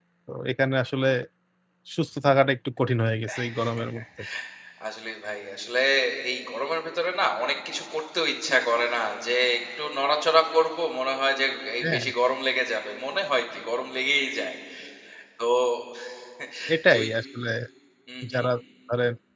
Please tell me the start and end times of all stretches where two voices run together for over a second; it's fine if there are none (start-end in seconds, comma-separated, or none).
none